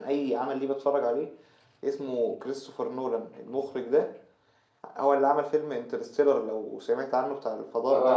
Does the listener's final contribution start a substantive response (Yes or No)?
Yes